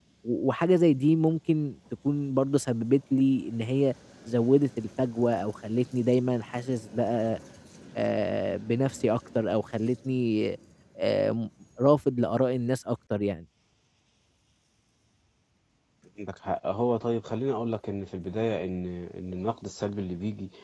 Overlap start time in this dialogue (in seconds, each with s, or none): none